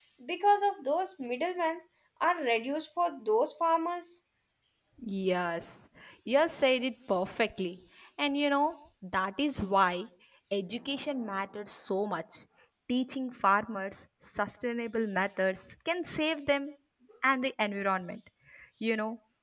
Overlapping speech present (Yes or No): No